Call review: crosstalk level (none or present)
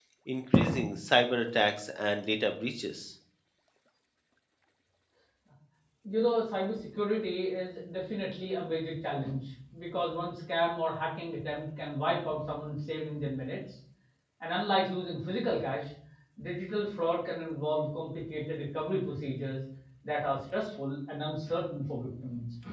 none